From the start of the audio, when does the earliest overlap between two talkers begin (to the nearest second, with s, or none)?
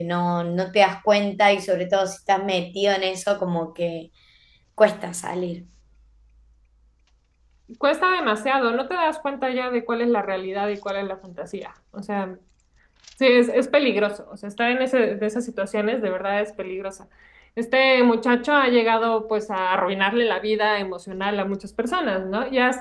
none